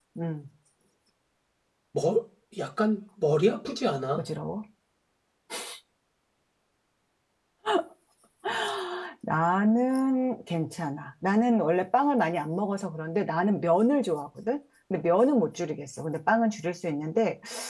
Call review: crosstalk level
none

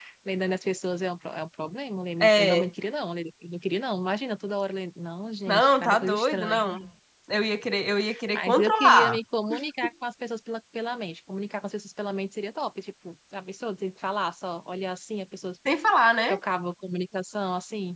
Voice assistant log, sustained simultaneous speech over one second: present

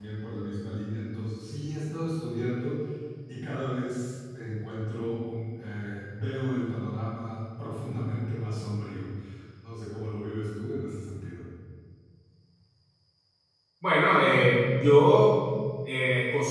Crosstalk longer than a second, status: none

